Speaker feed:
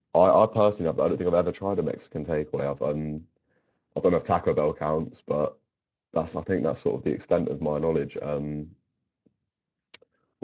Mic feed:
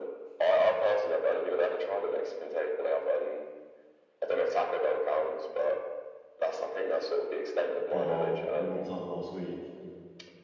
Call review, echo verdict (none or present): present